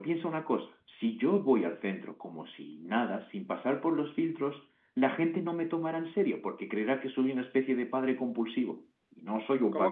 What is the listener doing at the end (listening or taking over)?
taking over